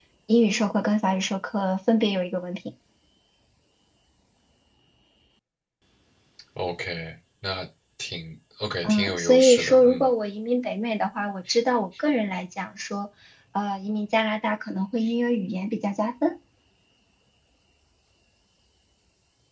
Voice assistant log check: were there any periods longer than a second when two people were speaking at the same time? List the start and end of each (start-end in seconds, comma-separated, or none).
8.8-10.1